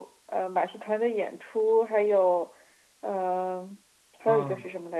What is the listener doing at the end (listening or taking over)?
listening